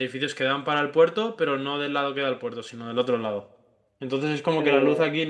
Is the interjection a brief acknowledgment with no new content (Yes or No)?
Yes